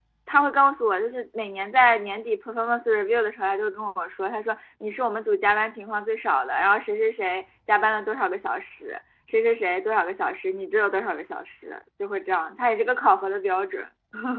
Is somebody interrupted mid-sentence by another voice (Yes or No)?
No